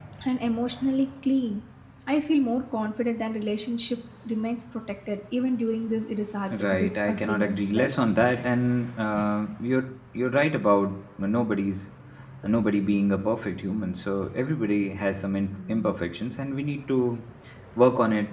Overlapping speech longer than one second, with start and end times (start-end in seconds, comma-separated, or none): 6.5-7.9